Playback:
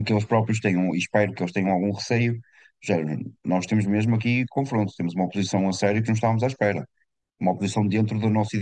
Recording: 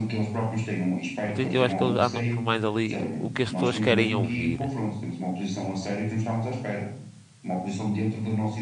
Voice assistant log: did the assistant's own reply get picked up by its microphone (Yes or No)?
Yes